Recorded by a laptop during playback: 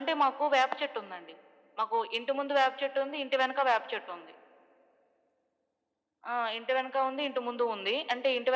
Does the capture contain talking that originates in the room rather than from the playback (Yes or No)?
No